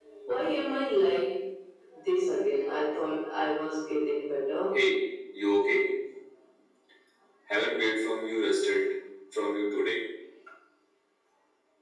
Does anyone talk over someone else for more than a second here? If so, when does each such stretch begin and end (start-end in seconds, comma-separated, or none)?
none